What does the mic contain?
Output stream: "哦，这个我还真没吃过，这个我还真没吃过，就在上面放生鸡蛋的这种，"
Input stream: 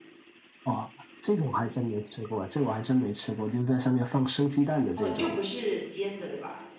both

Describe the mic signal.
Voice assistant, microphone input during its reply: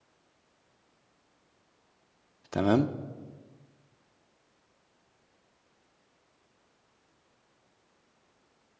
user only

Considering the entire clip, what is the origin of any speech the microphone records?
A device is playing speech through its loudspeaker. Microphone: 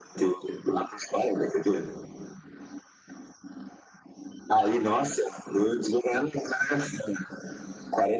echo only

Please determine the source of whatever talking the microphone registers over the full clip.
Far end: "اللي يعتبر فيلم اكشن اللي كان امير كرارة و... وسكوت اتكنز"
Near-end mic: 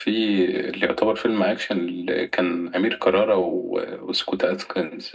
echo only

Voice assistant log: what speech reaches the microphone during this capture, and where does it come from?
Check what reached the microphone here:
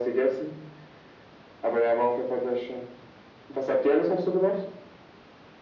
echo only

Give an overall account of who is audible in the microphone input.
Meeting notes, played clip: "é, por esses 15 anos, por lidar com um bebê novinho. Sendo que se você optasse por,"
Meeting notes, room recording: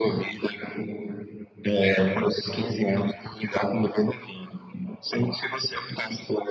echo only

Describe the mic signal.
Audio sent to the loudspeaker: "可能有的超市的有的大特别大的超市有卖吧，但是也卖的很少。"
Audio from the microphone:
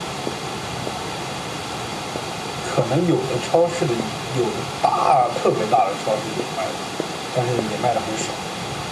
echo only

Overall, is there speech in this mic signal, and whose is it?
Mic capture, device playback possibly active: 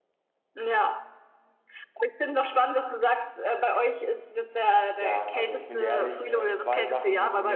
both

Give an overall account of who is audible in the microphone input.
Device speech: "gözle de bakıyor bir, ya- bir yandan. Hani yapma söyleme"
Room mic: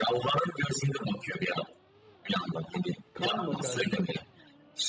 both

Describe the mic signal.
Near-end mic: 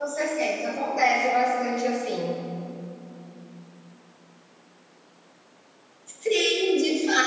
user only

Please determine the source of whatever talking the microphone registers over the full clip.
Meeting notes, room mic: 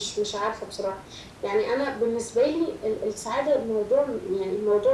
echo only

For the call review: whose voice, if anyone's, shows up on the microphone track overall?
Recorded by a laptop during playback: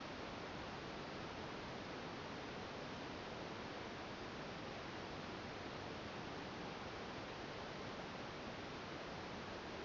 neither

